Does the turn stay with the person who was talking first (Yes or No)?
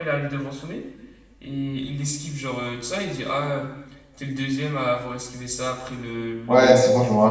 No